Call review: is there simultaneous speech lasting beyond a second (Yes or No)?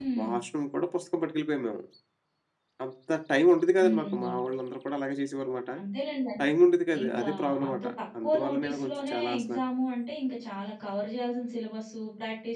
Yes